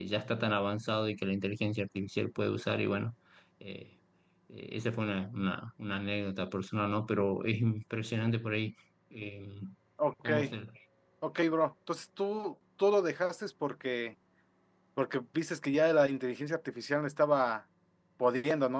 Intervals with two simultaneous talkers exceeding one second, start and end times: none

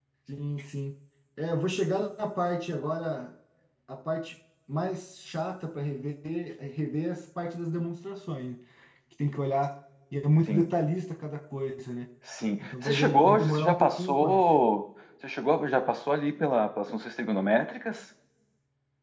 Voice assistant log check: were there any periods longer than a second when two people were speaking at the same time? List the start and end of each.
12.6-14.4

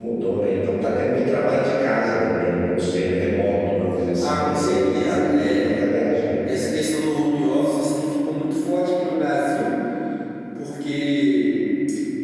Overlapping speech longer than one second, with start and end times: 4.2-5.8

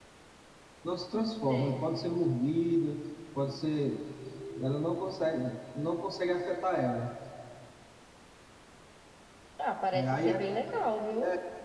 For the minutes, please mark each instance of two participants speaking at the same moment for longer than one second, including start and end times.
none

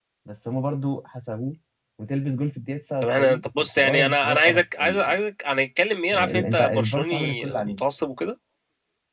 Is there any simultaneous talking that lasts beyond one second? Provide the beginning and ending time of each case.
3.0-5.2, 6.1-7.8

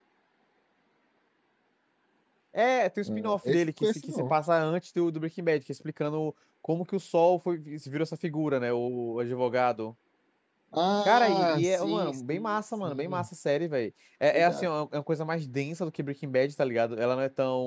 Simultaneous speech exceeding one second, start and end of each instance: 3.0-4.4, 11.0-13.3

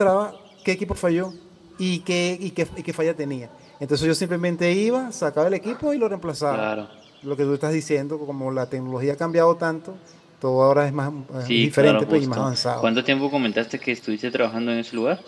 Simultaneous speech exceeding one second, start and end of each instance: 11.4-12.9

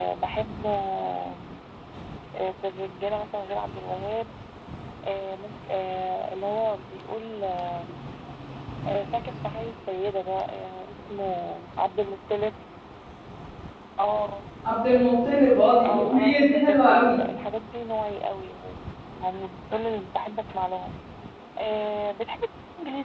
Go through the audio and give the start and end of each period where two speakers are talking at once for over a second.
15.9-17.2

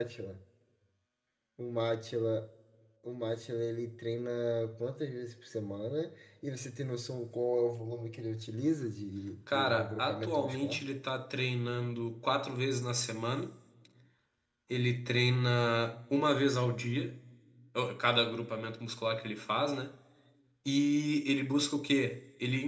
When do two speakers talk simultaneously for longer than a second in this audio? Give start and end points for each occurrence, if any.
9.5-10.8

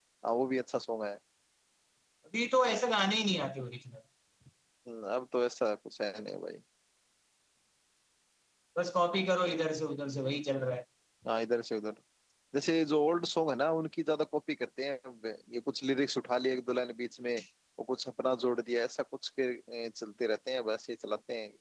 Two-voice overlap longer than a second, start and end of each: none

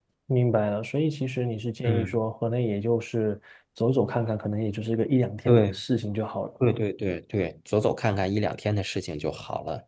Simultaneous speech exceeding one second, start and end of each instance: none

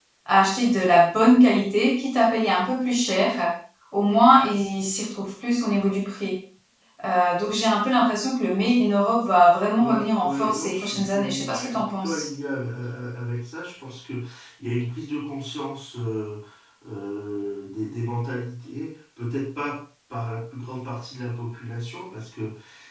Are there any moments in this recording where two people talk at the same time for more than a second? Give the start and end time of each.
9.8-12.3

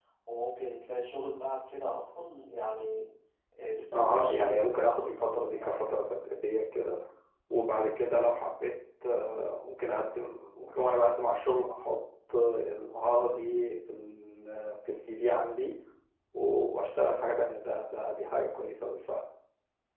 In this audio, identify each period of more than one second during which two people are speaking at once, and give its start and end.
3.9-6.1

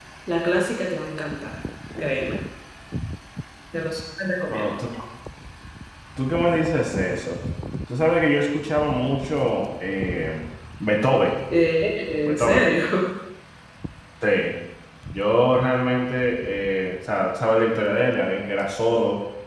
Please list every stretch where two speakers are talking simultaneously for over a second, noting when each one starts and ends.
none

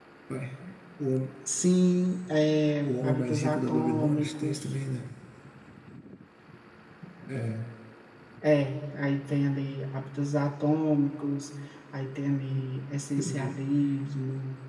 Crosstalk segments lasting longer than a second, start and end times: 2.8-4.7

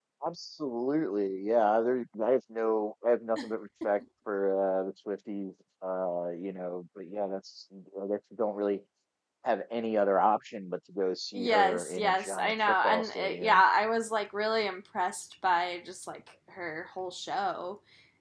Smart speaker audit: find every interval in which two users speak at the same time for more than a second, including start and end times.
11.3-13.6

